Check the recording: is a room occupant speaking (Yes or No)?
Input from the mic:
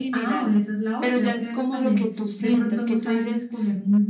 Yes